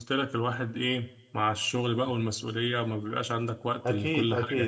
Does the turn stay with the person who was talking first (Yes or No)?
No